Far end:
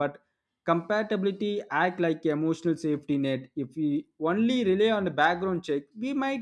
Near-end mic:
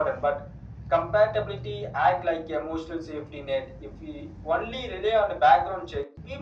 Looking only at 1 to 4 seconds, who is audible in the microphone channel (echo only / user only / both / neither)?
echo only